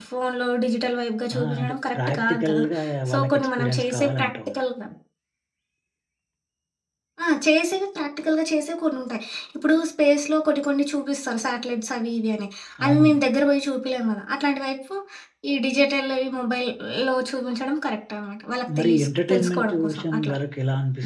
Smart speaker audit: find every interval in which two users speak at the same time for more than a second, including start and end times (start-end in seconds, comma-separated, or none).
1.4-2.6, 3.1-4.5, 18.8-20.3